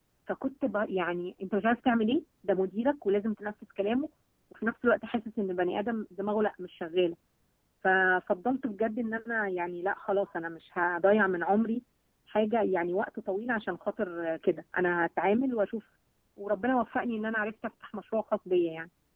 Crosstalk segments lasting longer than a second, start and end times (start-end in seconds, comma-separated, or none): none